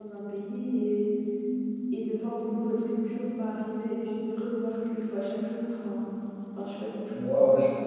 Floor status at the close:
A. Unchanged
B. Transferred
B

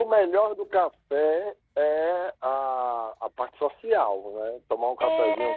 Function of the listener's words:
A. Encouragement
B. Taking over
B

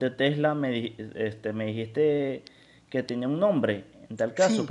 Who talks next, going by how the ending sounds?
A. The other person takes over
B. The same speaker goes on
B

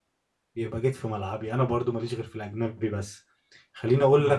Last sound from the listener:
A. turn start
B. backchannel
B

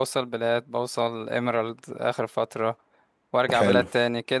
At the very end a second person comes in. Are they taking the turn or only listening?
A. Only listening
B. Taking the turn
A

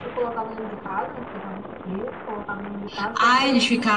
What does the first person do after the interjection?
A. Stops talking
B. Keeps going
A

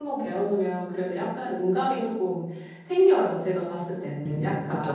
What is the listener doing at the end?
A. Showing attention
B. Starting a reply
B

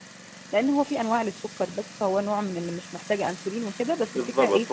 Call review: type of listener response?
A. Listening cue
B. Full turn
B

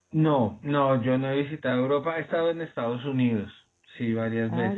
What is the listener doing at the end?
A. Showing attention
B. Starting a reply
B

